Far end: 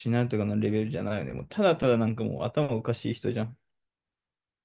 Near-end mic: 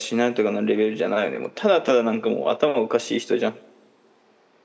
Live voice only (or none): none